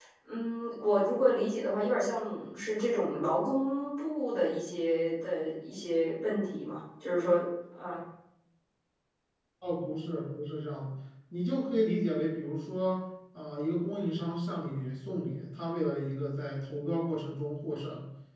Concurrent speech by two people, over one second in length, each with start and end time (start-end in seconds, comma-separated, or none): none